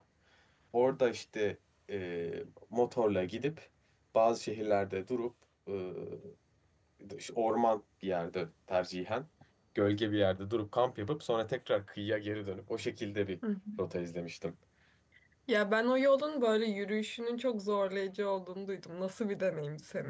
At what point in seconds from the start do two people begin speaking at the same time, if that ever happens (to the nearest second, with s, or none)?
none